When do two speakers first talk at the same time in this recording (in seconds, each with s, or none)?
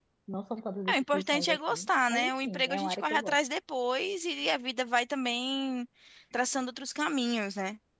0.9 s